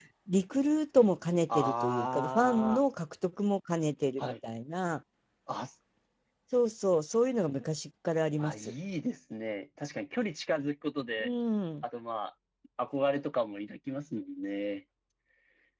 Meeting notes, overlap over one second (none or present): present